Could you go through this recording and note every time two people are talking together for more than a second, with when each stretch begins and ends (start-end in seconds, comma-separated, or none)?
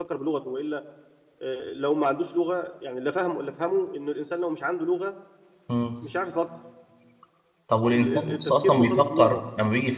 7.9-9.4